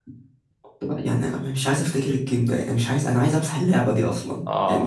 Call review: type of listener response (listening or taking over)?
taking over